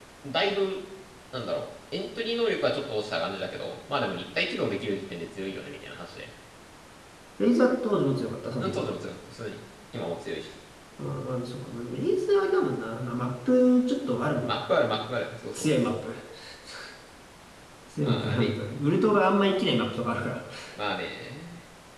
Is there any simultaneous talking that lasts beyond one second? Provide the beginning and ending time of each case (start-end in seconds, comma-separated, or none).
none